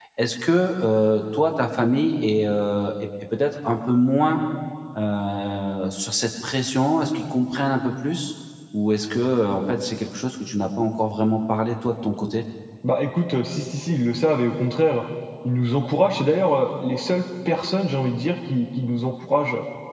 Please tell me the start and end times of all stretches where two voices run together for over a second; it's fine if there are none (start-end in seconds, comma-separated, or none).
none